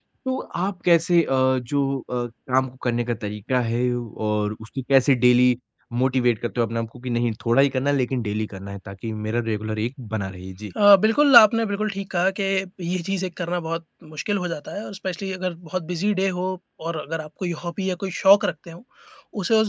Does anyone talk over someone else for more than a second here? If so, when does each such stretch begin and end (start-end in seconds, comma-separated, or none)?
none